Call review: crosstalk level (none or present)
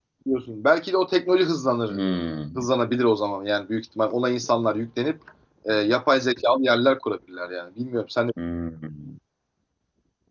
none